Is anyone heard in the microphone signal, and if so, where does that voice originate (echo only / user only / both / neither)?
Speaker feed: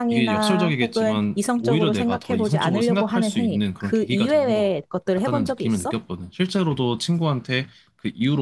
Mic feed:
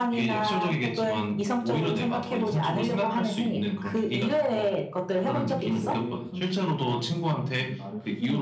both